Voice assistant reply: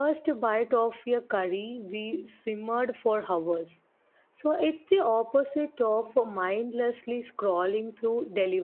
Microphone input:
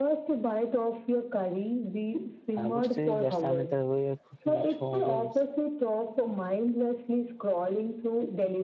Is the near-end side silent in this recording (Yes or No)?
No